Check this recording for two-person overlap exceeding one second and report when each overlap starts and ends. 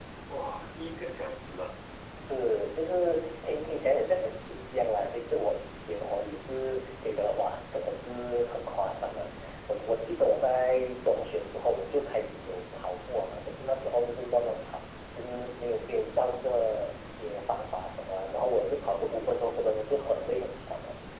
none

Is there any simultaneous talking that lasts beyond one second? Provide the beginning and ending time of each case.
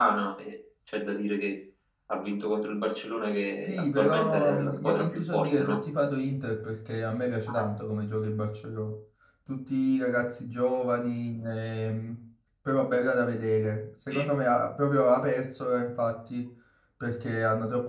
3.7-5.8

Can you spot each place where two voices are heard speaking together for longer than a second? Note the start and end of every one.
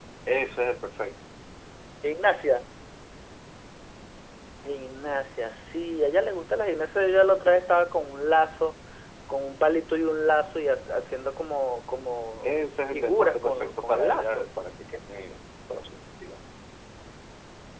12.4-14.5

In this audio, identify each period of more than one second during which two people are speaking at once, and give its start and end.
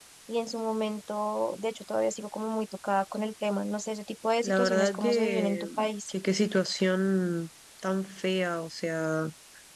4.4-5.7

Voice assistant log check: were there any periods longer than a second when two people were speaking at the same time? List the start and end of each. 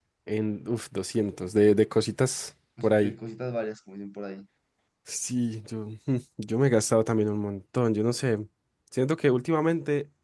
none

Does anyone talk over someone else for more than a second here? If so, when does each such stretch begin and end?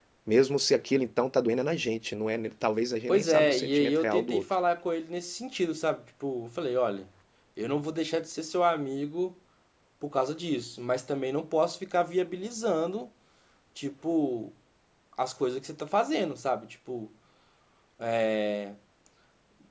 3.1-4.4

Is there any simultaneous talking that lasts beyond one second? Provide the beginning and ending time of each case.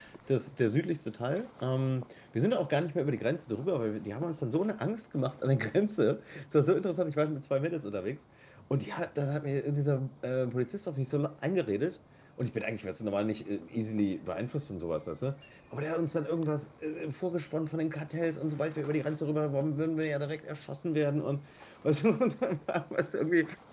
none

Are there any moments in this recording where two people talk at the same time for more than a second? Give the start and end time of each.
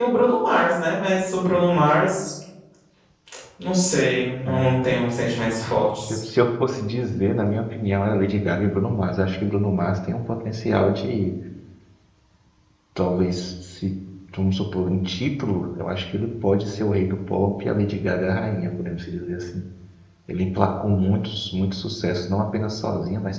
none

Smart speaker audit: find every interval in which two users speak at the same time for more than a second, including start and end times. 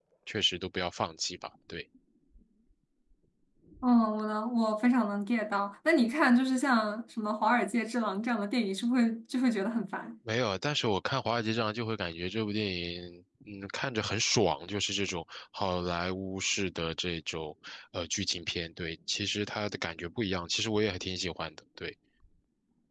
none

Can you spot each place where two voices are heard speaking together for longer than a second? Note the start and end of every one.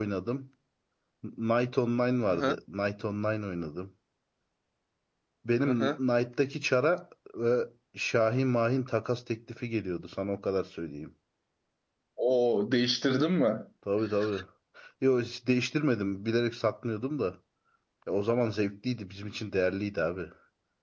none

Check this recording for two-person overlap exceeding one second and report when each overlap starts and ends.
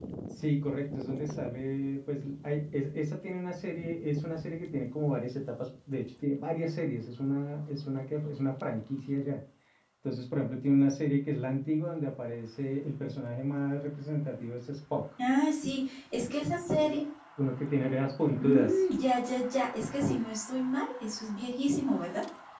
none

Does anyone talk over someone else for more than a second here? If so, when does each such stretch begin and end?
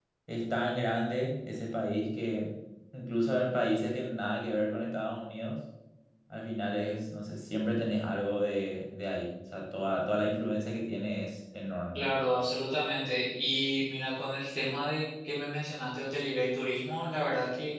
none

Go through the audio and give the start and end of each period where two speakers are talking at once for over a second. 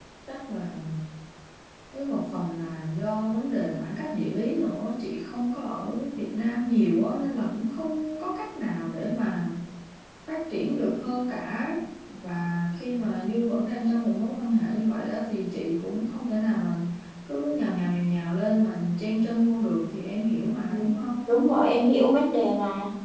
none

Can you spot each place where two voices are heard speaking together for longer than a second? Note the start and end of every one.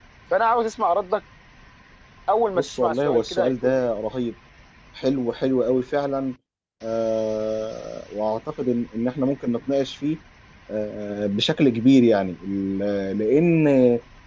2.5-3.9

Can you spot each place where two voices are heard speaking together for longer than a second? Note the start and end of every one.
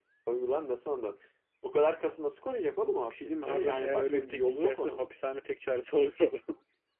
3.1-5.0

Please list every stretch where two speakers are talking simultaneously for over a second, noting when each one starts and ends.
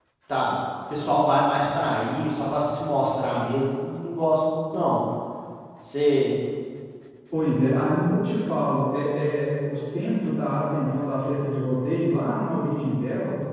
none

